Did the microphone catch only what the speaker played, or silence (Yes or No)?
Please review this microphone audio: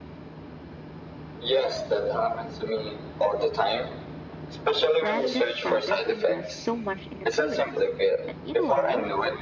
No